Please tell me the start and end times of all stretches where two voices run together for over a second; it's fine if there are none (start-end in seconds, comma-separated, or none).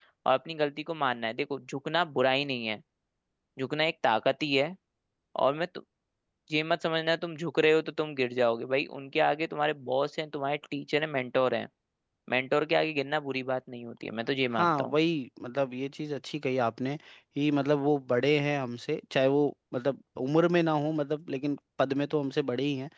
none